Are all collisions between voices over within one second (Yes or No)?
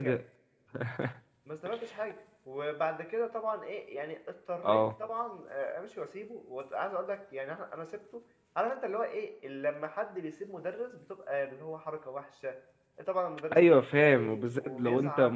No